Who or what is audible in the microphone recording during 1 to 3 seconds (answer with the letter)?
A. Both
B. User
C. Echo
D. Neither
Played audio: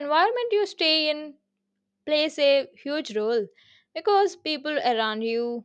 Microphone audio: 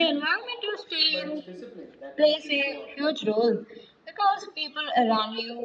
A